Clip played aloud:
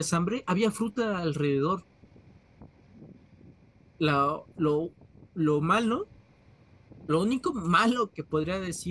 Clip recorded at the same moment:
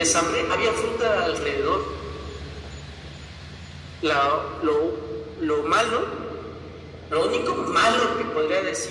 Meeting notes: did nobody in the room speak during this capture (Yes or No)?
Yes